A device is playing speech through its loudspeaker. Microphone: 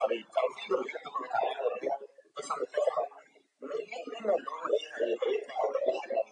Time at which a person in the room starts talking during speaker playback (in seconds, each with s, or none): none